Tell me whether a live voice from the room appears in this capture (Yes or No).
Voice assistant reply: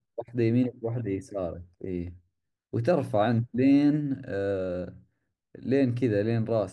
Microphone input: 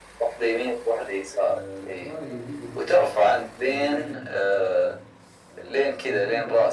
Yes